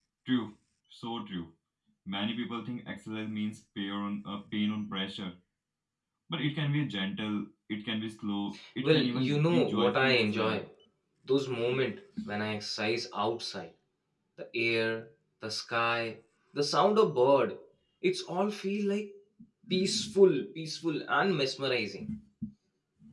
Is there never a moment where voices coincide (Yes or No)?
No